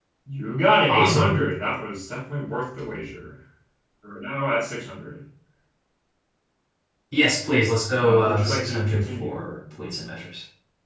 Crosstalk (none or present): present